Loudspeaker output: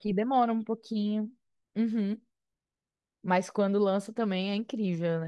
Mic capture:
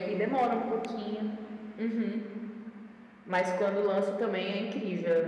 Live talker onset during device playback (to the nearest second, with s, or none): none